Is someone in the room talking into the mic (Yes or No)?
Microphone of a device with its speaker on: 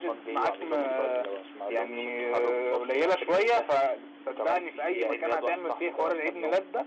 No